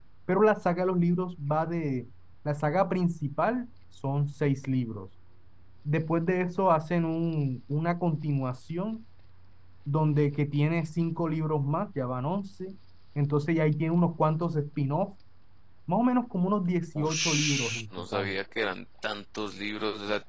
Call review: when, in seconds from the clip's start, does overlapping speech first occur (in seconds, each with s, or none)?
16.9 s